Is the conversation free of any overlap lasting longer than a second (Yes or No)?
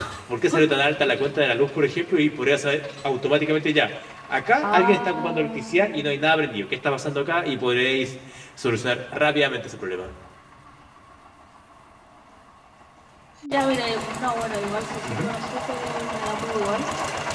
No